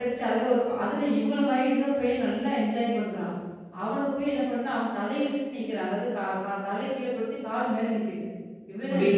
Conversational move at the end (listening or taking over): listening